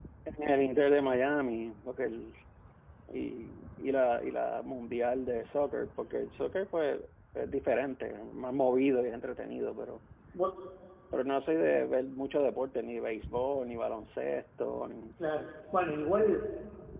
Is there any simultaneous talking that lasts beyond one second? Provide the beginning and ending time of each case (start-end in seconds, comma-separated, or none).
none